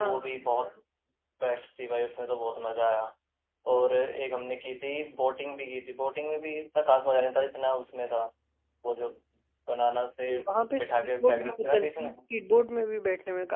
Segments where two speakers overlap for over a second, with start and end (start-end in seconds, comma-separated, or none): 10.8-12.2